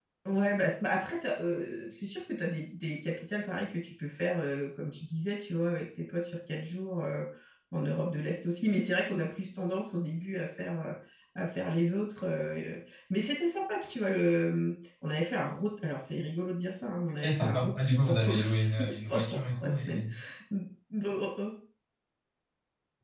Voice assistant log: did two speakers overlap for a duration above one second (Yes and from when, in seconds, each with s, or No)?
Yes, from 17.1 s